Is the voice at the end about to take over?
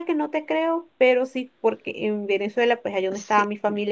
No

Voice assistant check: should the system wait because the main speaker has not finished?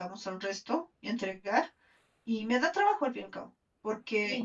Yes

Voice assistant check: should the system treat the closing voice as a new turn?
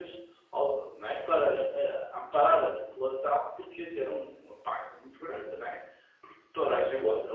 No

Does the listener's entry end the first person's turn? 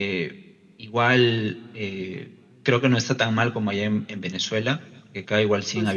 No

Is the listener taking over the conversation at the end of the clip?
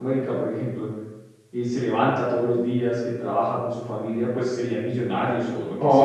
Yes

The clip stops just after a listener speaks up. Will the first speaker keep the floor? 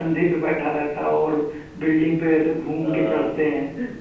No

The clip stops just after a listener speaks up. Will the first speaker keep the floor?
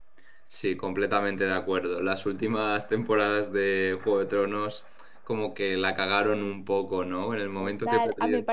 No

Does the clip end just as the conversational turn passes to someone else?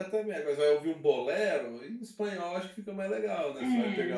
Yes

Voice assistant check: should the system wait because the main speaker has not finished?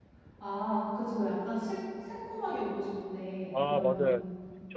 No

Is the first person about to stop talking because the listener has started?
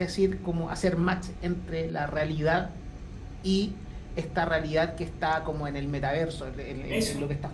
No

